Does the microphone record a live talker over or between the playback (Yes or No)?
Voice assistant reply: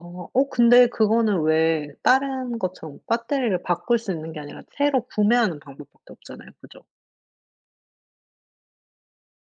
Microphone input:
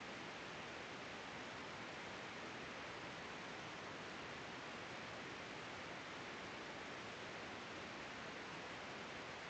No